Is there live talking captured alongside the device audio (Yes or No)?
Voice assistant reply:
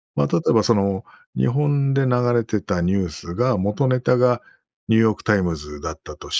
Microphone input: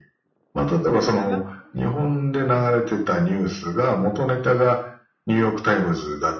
Yes